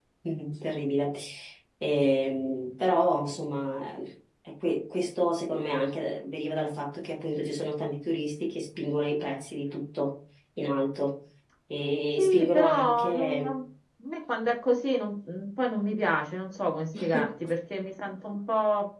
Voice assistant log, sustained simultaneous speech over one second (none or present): present